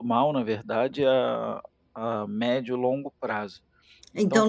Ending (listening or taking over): taking over